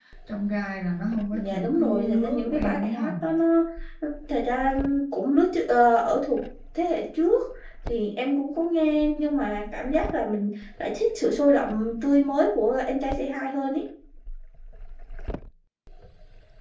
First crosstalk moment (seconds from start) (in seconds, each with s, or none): 1.3 s